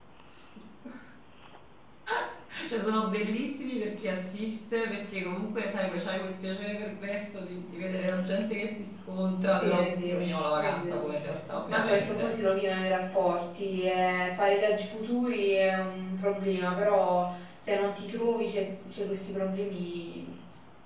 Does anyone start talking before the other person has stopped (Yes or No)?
Yes